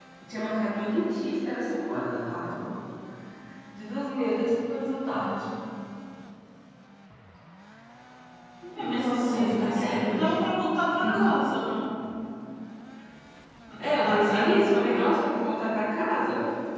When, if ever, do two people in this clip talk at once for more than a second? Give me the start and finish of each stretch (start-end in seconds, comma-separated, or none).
9.0-10.3, 13.9-15.3